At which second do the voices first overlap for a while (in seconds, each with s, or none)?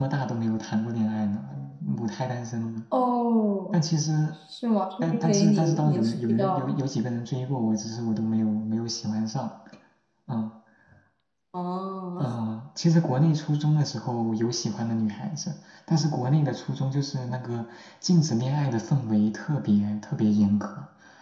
5.0 s